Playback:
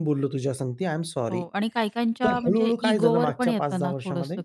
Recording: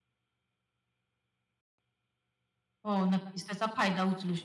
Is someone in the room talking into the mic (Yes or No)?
Yes